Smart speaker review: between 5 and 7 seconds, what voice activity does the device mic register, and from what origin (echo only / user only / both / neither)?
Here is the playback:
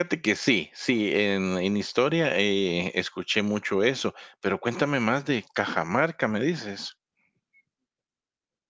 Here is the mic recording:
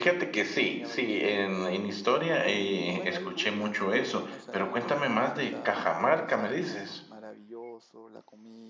both